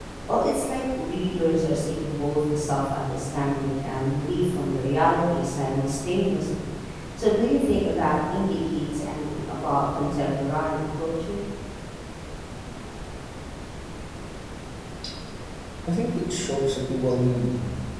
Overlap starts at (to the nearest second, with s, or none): none